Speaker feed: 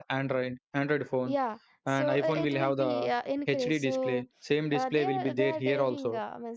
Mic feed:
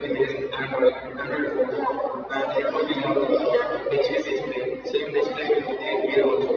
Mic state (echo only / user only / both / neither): echo only